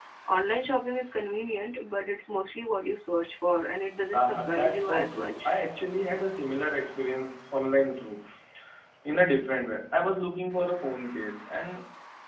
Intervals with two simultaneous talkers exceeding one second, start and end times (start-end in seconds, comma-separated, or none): 4.1-5.5